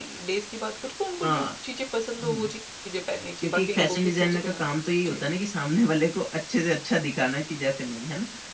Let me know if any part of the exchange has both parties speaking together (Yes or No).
Yes